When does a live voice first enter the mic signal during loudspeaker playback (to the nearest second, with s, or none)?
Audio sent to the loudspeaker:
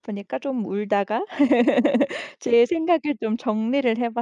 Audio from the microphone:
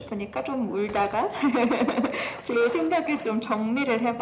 none